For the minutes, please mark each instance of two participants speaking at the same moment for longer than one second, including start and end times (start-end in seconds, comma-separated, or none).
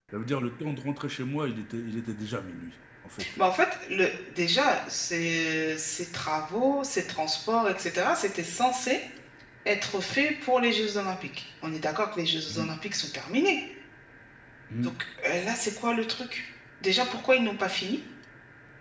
none